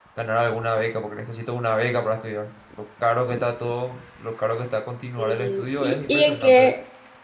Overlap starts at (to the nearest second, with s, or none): 5 s